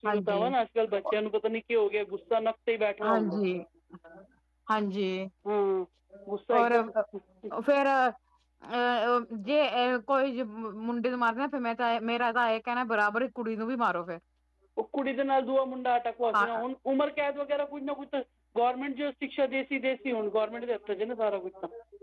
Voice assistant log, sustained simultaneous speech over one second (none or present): none